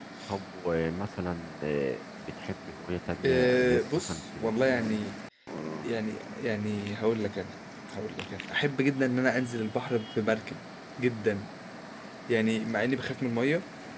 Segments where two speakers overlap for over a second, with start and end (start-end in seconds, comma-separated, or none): 3.2-4.7